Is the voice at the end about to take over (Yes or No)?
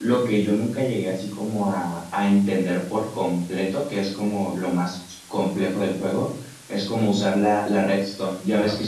No